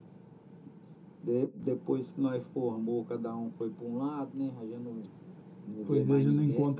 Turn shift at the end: Yes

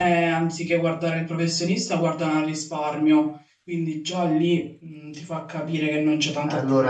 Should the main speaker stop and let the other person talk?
Yes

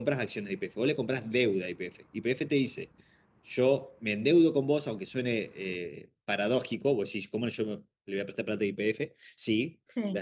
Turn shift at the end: No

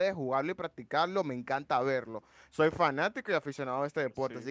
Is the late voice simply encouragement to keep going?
Yes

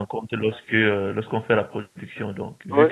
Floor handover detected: No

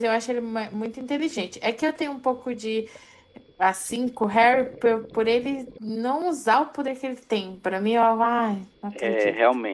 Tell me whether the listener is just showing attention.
No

